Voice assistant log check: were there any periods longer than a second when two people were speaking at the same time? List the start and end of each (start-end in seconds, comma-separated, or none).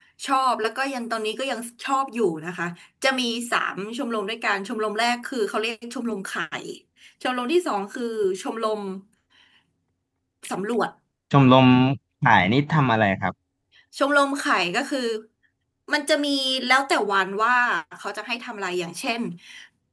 none